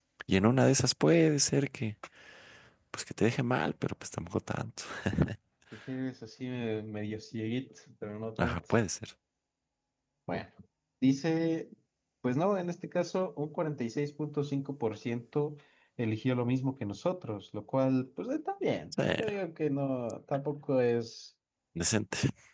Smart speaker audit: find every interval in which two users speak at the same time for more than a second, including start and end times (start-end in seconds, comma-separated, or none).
none